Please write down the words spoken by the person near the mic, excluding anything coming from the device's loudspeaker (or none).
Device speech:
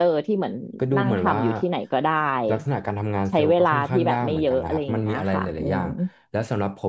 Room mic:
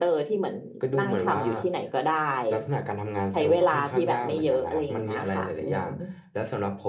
none